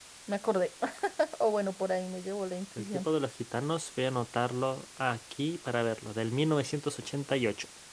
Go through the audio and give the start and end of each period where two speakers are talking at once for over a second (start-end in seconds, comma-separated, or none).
none